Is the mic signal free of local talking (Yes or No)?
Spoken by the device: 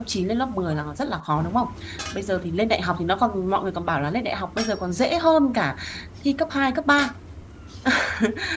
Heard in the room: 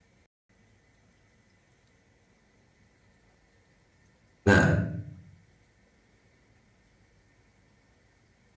No